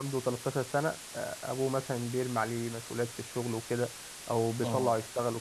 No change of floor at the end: Yes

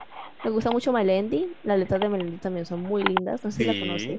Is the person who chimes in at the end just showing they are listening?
No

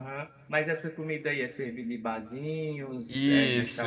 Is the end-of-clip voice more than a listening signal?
Yes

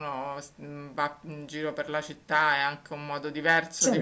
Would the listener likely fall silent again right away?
Yes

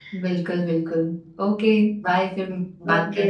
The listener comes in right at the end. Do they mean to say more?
Yes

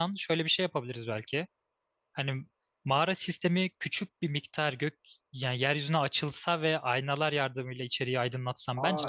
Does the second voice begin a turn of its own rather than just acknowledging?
Yes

